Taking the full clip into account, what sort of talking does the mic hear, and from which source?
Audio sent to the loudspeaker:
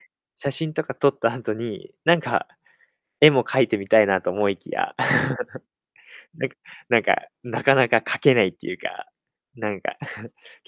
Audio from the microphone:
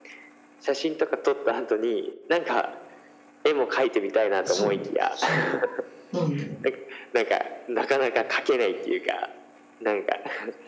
both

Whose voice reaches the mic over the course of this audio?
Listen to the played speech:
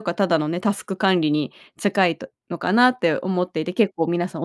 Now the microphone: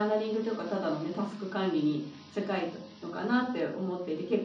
echo only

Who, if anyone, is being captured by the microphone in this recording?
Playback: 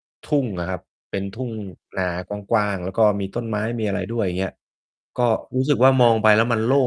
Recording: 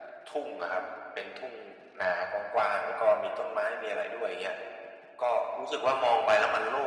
echo only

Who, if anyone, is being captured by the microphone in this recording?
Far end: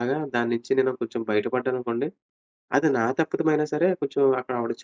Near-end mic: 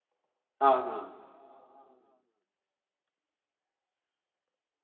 user only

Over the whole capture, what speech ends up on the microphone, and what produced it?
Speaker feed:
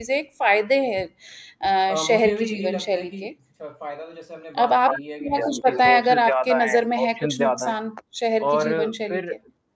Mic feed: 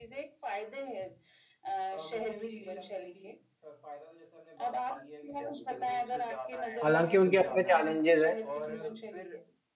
both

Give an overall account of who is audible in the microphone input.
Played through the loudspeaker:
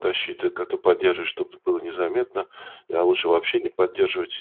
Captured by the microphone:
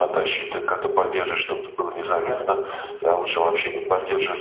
both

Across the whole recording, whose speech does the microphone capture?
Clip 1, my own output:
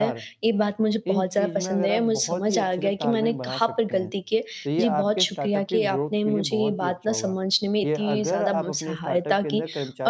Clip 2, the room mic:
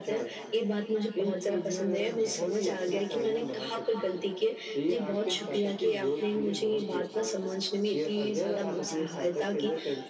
echo only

